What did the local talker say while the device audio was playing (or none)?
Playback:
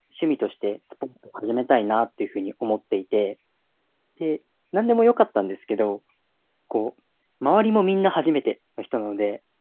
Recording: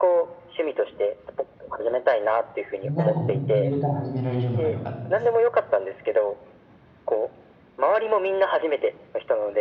みんなで同じレベルから始められるのが良かったです。